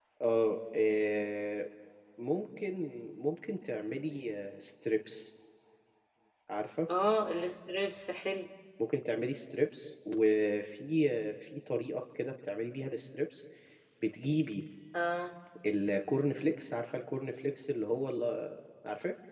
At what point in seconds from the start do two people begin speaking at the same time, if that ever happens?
none

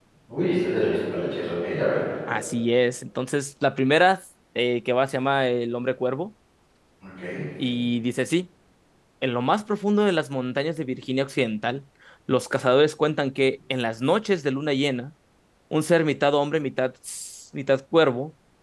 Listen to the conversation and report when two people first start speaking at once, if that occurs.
none

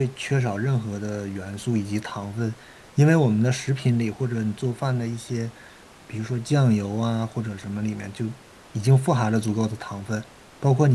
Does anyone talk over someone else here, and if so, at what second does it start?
none

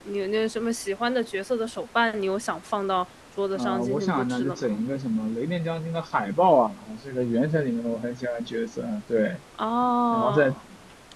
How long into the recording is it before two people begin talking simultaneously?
4 s

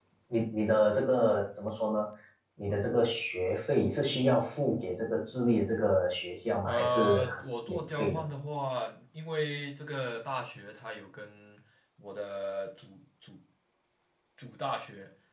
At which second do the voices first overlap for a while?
7 s

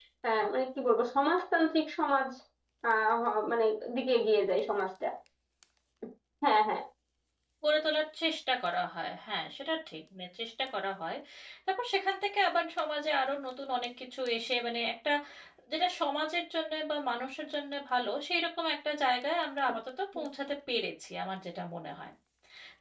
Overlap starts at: none

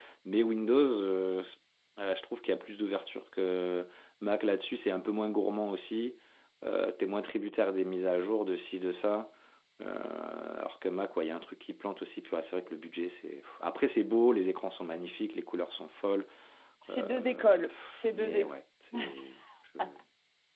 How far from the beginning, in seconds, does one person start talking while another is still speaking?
17 s

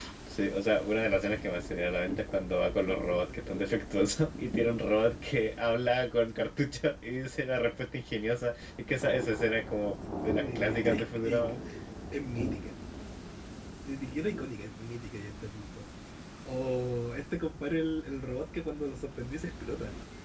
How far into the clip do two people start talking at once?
10 s

